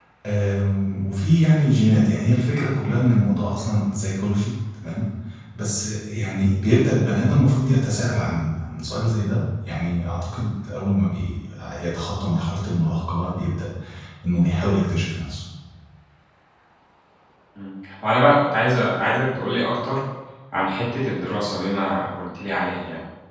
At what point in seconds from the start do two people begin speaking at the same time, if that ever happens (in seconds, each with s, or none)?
none